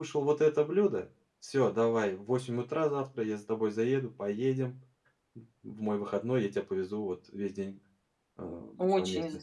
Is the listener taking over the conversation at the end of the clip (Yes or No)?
Yes